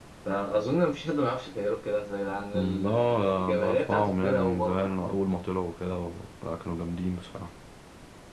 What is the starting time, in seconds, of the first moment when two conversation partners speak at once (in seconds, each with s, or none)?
2.5 s